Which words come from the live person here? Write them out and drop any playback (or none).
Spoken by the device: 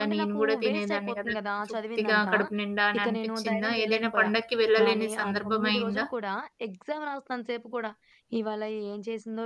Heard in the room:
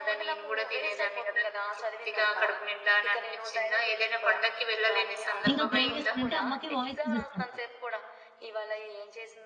ఇంక అప్పుడు ఏం చేస్తానంటే అమ్మకి వాయిస్ మెసేజ్ పెడతా.